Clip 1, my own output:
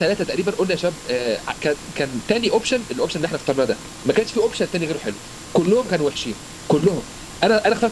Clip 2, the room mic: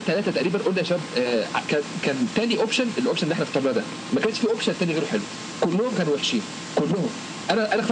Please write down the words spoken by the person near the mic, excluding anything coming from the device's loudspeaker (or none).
none